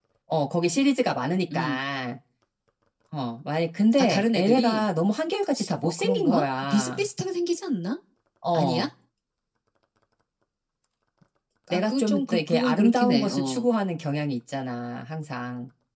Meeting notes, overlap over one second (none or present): present